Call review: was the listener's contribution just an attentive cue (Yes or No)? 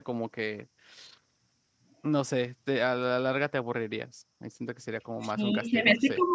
No